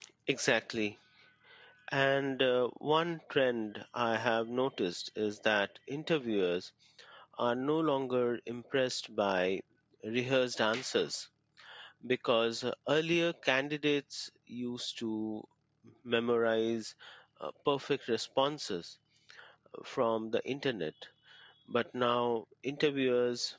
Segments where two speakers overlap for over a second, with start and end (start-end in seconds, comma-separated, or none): none